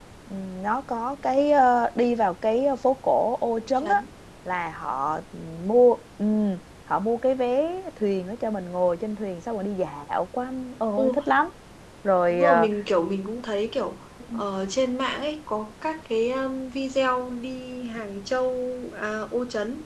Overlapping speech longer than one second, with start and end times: none

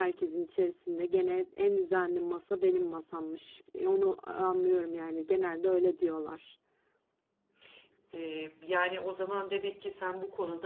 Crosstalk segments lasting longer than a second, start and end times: none

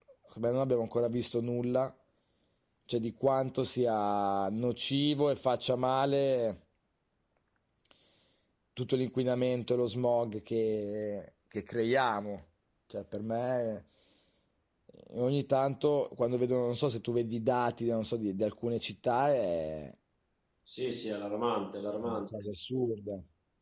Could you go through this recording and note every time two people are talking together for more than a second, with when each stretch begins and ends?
none

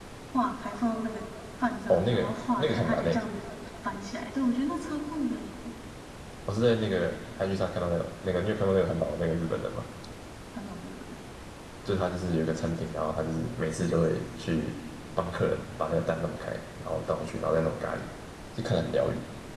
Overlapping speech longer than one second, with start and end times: 1.9-3.2

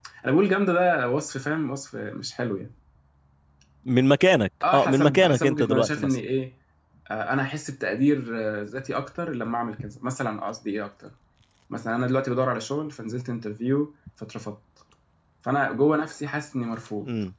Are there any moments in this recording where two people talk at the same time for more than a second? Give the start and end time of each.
4.7-6.2

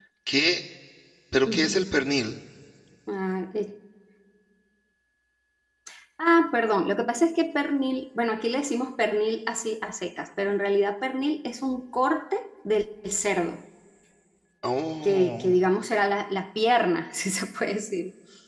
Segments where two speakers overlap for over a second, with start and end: none

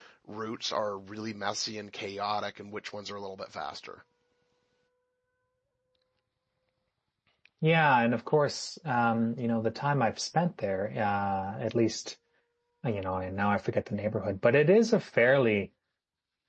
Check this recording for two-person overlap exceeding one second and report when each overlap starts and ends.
none

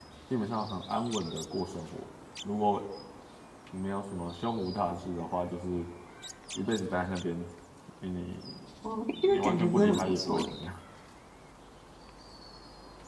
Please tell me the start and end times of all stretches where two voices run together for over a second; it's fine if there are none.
9.1-10.5

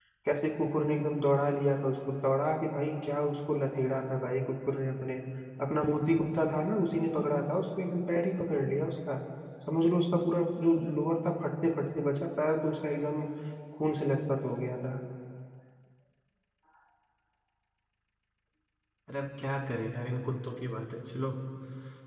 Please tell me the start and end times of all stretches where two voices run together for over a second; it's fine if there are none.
none

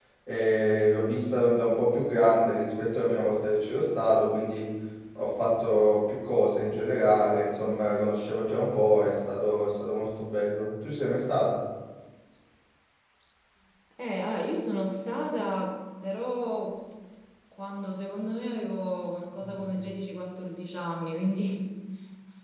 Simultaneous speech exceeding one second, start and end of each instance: none

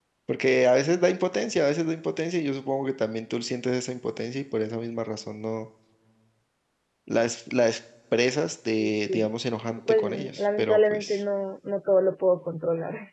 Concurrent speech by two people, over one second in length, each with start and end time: 9.9-11.2

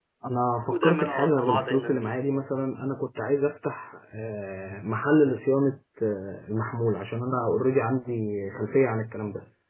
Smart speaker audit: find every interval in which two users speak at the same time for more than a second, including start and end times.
0.7-2.2

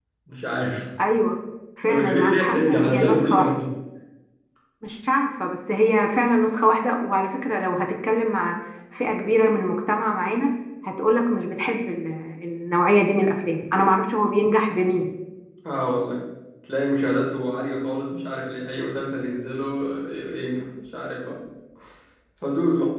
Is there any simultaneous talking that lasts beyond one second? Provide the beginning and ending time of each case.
1.8-3.5

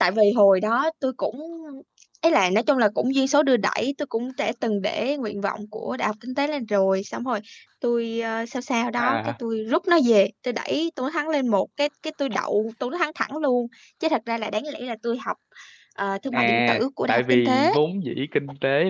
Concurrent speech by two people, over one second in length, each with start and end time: 16.3-17.7

